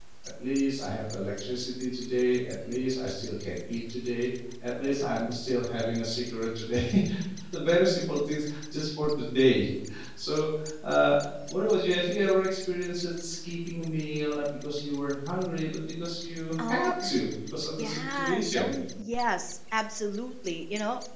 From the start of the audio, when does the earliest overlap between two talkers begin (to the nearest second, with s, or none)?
17 s